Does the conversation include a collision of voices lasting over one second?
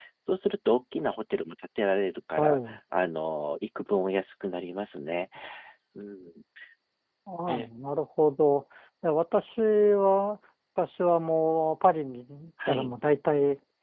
No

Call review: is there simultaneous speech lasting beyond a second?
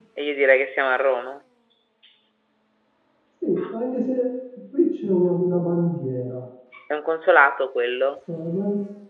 No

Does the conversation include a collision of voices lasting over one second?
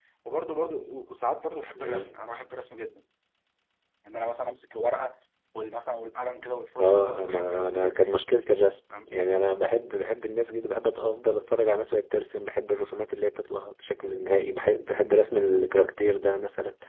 Yes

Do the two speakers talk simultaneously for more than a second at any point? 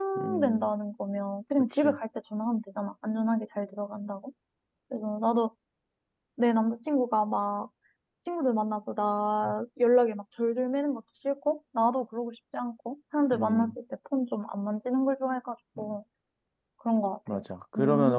No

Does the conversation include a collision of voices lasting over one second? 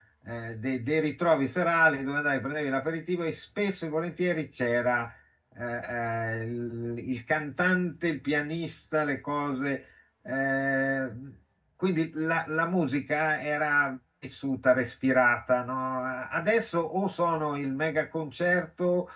No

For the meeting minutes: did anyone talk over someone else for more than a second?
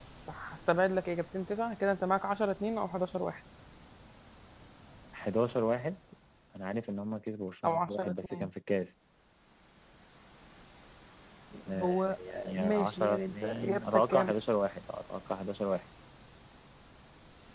Yes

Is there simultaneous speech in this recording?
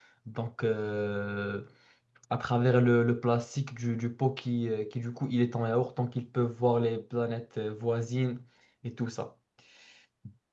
No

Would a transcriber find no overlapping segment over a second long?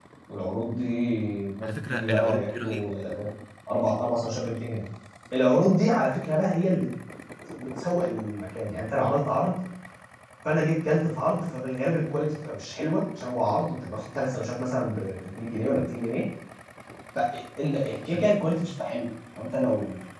No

